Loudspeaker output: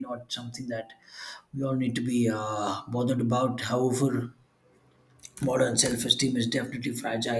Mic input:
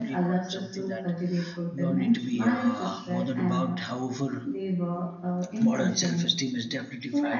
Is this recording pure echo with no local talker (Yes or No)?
No